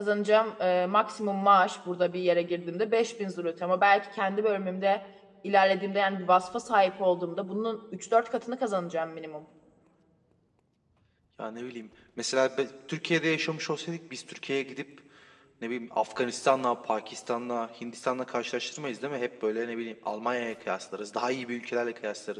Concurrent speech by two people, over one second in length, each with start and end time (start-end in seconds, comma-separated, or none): none